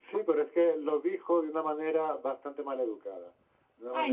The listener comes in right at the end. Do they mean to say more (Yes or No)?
Yes